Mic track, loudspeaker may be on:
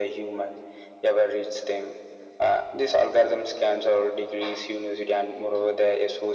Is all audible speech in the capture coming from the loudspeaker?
Yes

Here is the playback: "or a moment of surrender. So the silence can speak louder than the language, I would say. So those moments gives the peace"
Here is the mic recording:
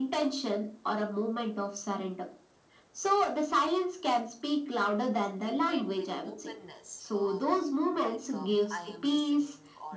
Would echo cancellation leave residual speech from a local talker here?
Yes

